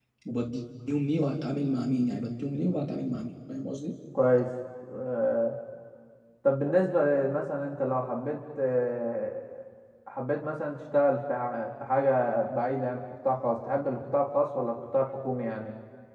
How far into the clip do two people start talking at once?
none

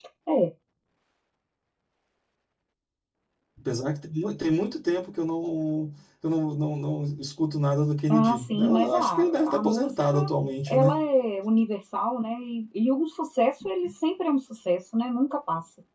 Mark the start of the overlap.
8.1 s

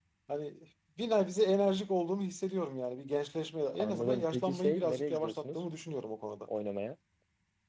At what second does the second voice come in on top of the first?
3.7 s

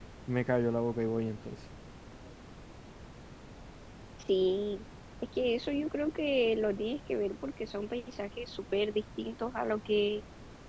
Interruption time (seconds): none

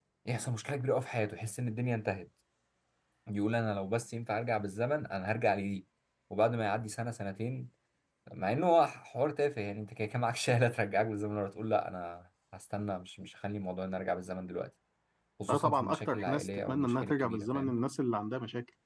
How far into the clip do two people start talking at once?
15.5 s

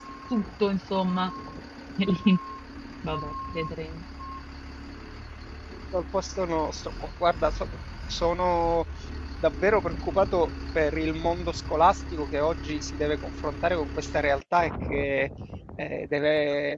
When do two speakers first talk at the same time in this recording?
none

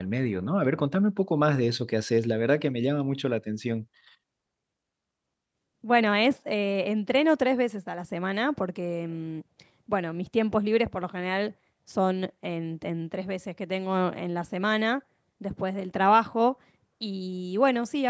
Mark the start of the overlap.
none

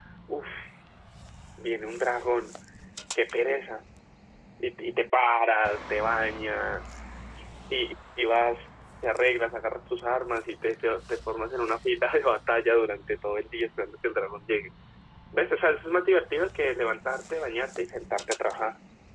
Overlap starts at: none

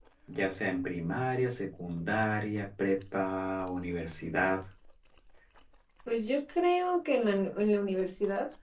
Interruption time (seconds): none

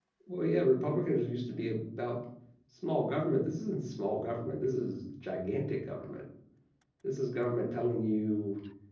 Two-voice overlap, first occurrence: none

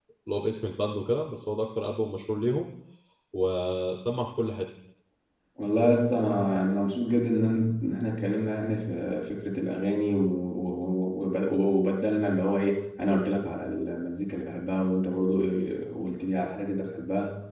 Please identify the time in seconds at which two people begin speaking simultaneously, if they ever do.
none

